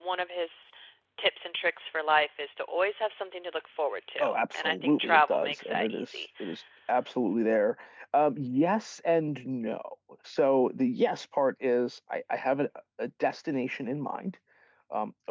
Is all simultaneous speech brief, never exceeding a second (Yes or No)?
No